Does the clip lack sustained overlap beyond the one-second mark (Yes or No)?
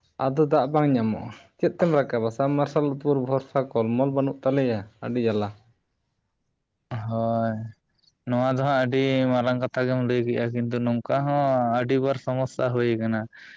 Yes